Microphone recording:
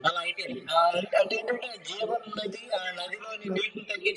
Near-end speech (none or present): none